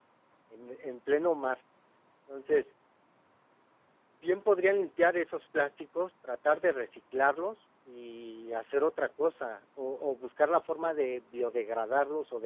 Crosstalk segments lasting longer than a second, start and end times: none

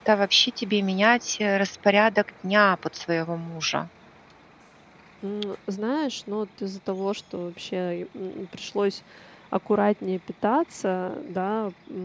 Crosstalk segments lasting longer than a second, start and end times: none

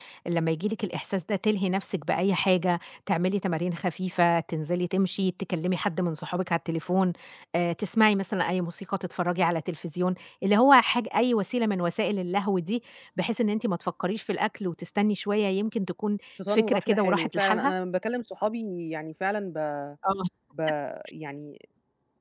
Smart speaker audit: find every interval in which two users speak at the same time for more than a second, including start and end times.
16.5-17.7

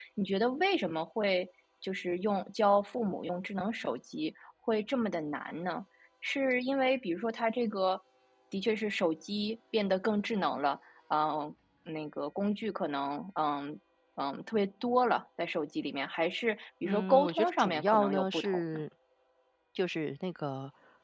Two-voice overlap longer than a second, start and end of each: 16.8-18.6

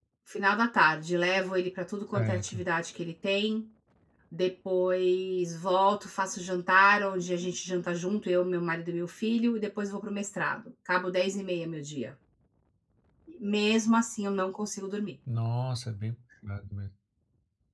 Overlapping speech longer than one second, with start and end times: none

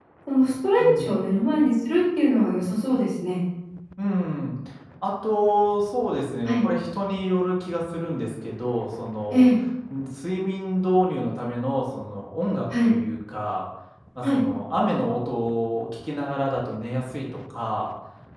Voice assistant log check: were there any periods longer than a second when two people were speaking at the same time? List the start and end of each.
none

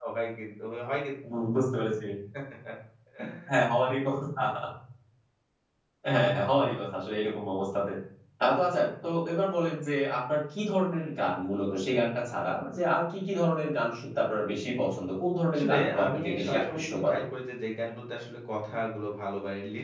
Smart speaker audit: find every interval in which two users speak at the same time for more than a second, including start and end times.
15.5-17.2

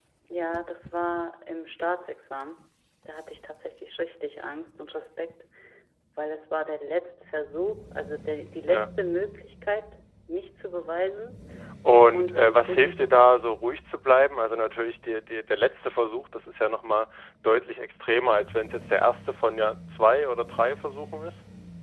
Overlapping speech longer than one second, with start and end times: 12.1-13.4

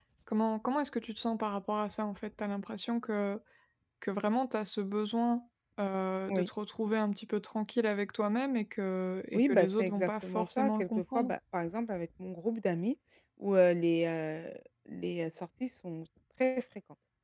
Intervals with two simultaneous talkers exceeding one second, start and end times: 9.3-11.3

